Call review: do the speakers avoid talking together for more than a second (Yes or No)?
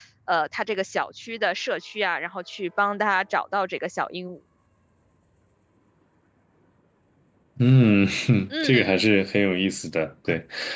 Yes